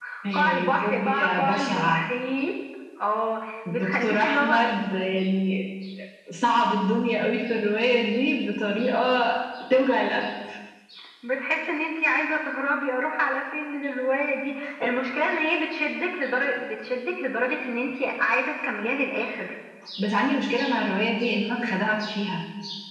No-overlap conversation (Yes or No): No